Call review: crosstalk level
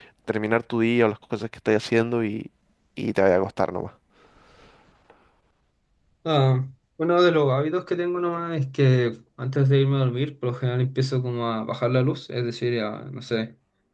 none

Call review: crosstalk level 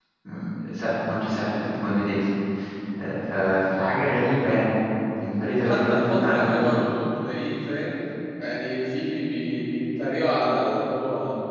present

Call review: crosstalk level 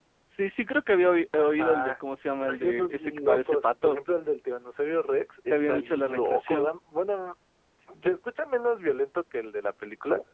present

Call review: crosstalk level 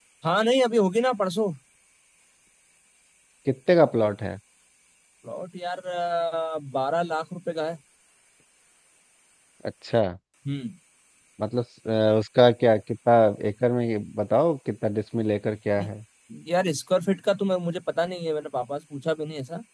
none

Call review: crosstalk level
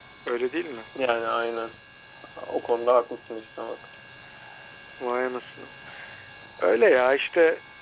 none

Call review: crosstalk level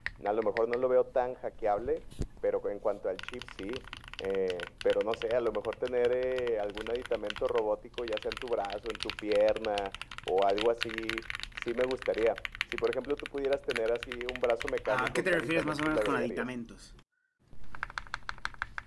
present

